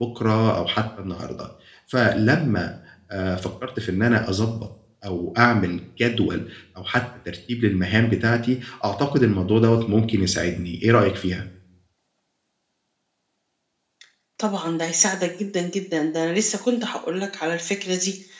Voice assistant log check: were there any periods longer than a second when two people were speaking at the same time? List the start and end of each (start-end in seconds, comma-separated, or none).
none